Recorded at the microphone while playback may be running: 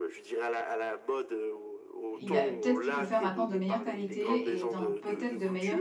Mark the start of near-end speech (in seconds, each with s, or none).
2.2 s